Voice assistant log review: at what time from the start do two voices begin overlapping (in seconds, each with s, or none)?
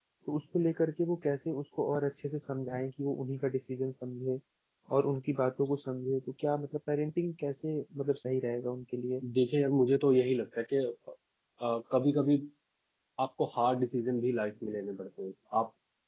none